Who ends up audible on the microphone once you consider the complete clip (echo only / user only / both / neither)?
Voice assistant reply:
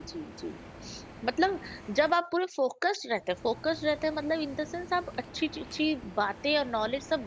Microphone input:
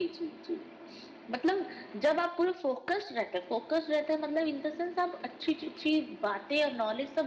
echo only